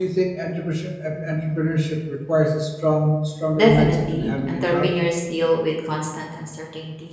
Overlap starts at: 3.6 s

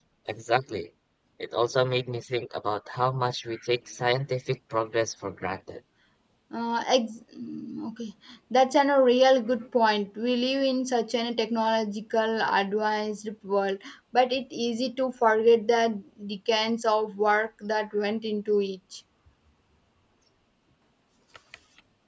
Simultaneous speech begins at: none

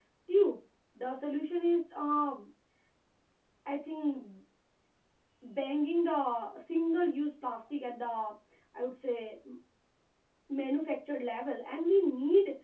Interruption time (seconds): none

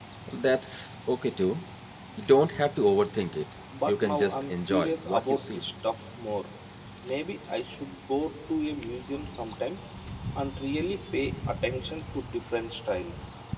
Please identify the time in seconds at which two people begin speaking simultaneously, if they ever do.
3.7 s

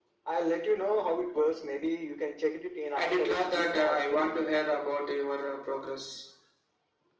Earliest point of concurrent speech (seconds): 3.0 s

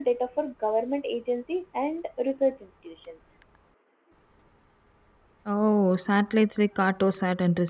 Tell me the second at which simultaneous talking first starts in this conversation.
none

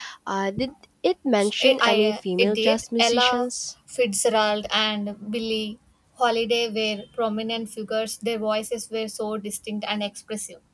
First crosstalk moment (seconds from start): 1.4 s

